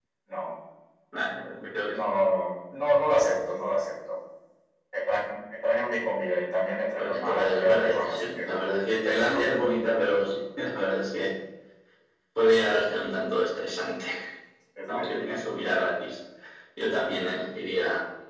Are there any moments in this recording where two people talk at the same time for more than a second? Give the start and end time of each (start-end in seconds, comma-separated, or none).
7.0-8.5